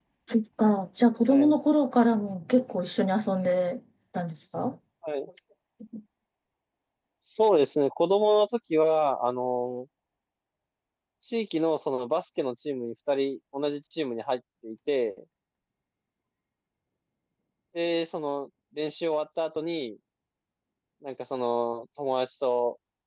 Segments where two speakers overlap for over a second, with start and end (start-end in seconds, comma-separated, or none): none